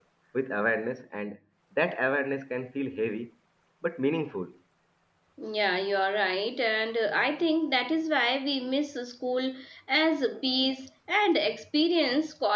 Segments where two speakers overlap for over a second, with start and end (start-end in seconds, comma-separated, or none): none